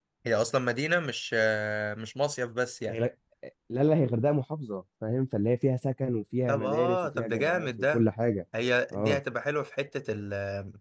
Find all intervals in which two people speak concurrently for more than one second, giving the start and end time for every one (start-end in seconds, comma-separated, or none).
6.5-8.0